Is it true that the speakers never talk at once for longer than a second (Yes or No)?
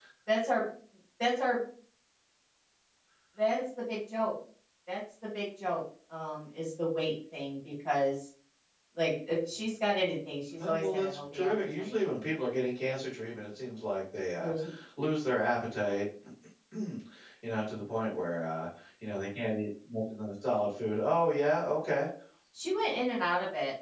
No